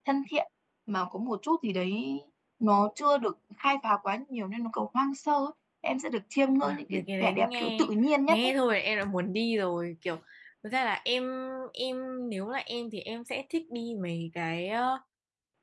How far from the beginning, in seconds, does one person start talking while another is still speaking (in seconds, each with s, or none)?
6.6 s